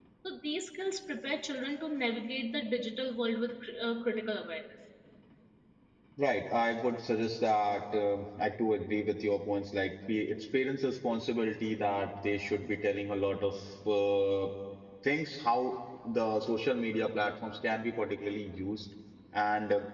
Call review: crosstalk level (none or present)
none